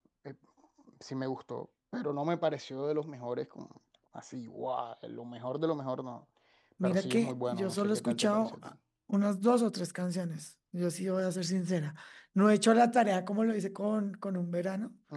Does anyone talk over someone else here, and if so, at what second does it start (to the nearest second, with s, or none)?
7 s